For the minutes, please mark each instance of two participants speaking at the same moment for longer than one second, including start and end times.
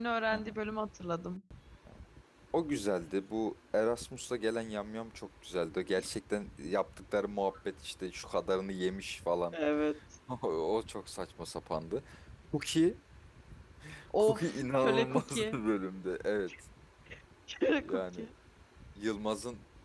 14.2-15.6

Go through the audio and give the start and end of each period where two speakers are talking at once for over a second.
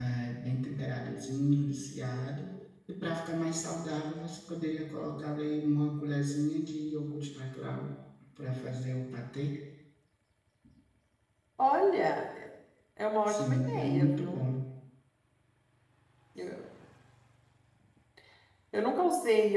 13.2-14.5

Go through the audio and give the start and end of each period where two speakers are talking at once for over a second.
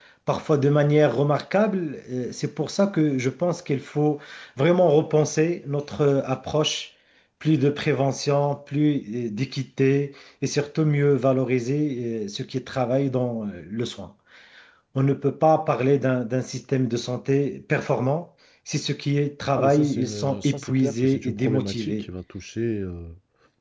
19.5-22.1

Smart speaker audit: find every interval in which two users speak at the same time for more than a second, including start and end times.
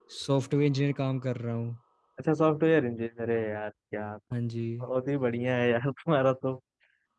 none

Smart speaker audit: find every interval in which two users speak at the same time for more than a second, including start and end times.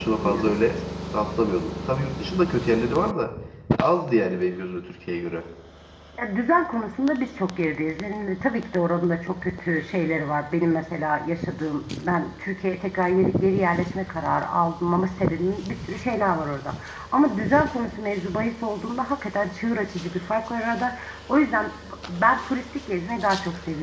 none

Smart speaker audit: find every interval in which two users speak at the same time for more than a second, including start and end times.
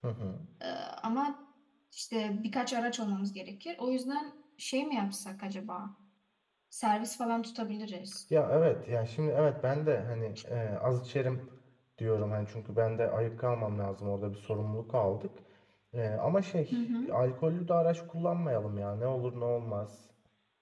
none

